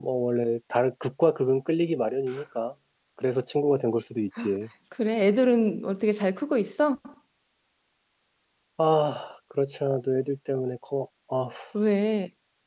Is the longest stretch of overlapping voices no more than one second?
Yes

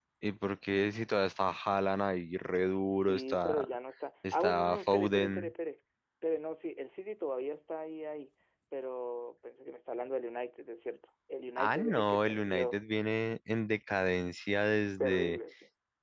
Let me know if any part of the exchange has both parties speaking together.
Yes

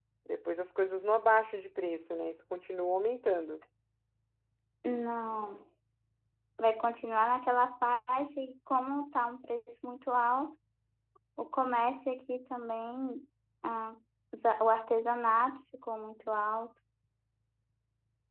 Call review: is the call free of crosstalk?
Yes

